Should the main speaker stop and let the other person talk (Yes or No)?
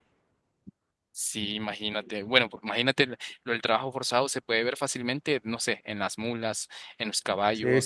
Yes